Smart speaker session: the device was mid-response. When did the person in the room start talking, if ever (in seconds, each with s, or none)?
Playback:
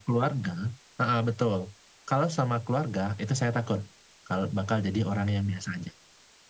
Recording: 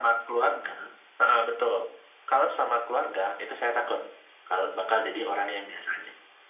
none